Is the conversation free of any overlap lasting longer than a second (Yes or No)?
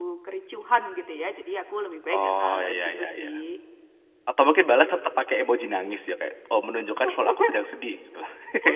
No